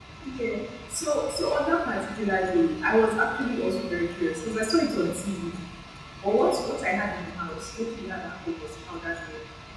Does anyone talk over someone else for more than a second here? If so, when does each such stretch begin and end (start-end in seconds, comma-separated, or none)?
none